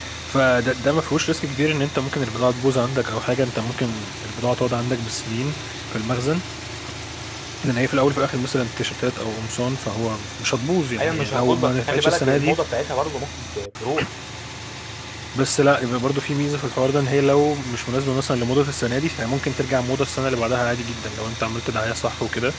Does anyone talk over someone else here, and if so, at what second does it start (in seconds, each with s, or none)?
11.0 s